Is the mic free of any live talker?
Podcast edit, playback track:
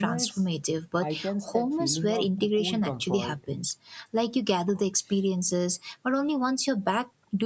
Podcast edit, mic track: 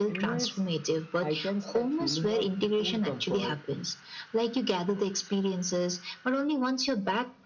Yes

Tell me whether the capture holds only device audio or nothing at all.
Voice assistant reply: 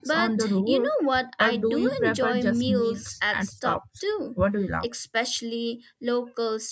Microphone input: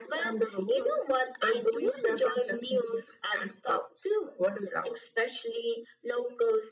Yes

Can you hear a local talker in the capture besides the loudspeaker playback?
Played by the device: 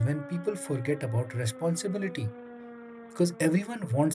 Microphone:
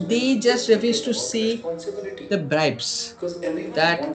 Yes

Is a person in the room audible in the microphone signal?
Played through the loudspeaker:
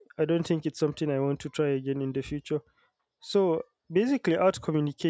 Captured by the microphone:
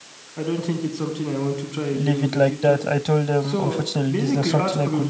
Yes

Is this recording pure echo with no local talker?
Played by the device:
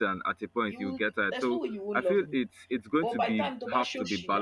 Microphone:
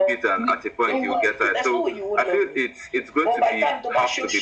No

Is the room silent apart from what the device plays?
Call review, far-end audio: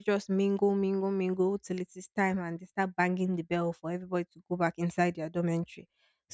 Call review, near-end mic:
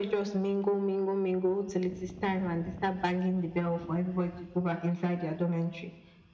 Yes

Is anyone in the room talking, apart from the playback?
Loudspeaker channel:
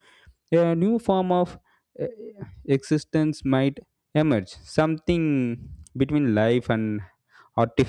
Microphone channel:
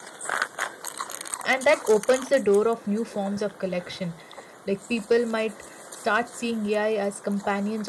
Yes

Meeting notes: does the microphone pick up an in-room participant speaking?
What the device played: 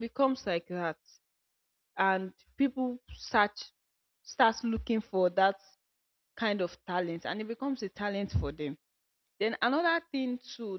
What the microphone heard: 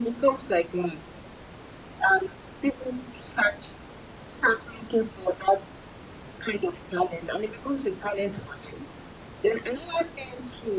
No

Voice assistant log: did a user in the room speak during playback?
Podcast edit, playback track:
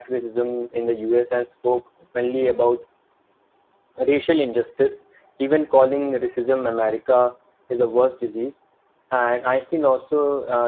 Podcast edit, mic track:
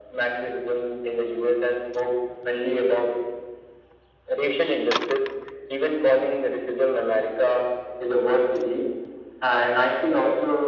No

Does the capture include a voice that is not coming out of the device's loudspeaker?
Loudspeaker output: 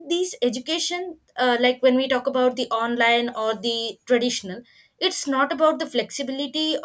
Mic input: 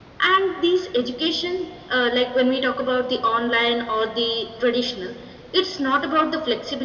No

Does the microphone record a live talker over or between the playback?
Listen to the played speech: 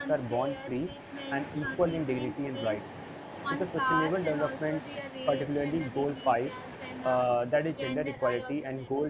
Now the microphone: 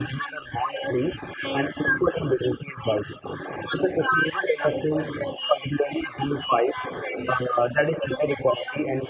No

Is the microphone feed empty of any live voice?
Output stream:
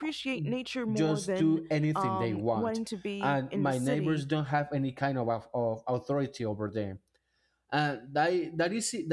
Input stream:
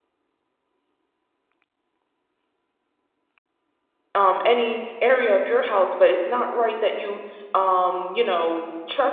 No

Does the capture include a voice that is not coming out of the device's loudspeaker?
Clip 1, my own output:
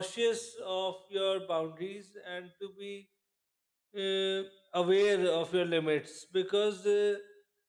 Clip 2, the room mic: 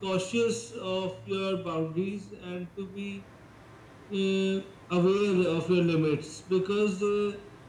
No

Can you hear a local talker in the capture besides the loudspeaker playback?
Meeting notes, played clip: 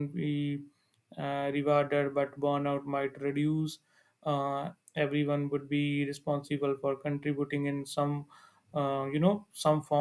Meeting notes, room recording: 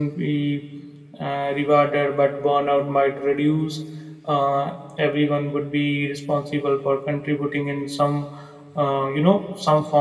No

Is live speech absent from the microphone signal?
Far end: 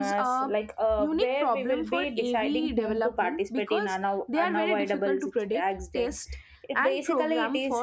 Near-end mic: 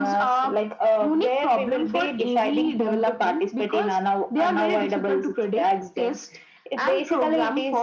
Yes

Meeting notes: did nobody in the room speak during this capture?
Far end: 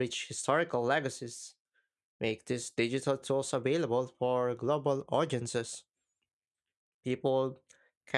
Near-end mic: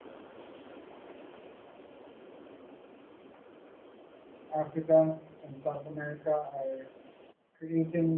No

